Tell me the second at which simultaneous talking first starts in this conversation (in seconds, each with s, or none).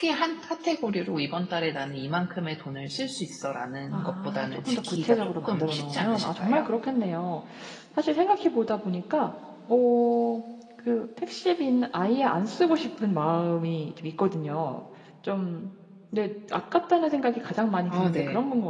3.9 s